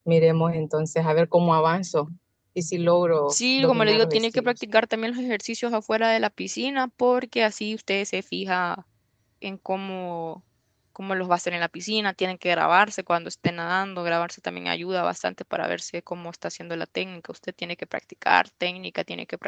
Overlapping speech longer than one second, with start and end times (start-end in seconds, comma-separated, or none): 3.3-4.5